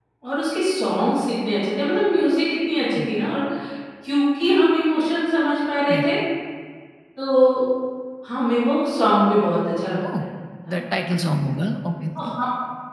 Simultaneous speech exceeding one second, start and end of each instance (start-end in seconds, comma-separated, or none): none